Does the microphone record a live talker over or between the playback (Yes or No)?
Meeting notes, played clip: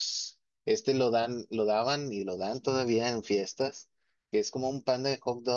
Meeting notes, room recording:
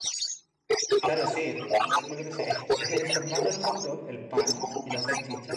Yes